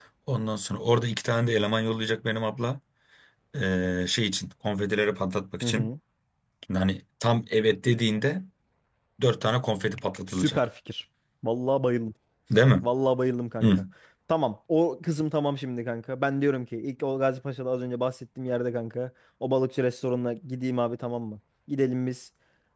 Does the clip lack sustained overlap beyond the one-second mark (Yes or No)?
Yes